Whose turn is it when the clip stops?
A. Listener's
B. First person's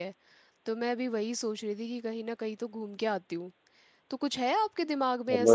A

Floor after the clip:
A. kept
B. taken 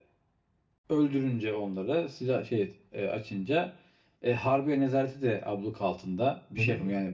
B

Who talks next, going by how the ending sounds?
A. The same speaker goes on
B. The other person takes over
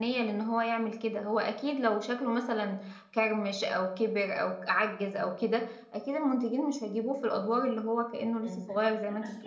B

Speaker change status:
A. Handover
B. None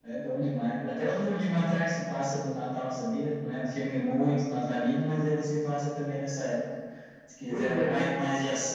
B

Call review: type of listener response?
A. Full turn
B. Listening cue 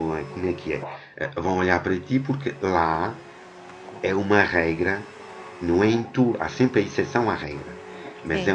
B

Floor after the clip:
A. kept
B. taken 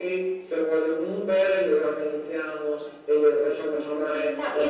B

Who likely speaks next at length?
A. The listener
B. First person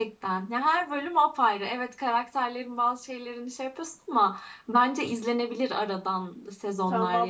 A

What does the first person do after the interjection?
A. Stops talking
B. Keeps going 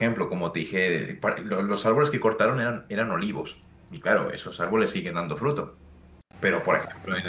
B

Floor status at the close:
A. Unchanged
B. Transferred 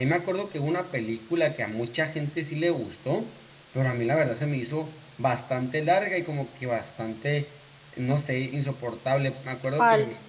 A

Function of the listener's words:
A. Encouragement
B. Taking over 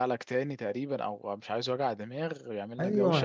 B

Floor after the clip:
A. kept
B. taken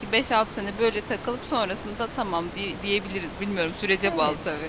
B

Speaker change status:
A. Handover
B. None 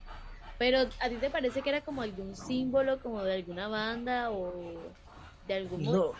B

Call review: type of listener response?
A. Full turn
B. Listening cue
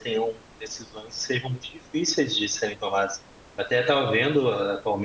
B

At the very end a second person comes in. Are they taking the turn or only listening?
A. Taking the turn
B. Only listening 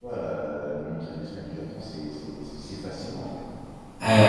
B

